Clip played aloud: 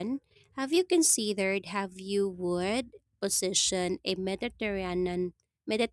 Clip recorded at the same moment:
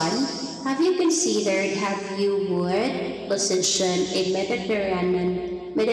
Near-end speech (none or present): none